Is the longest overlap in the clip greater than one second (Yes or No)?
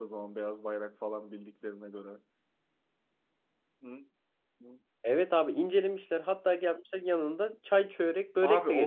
No